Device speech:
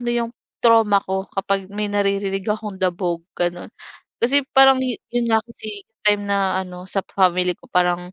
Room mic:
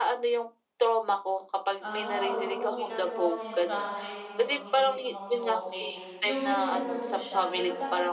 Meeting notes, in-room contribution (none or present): present